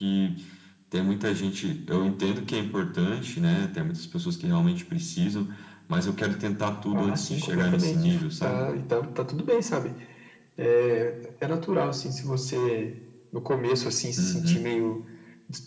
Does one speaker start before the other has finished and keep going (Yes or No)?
Yes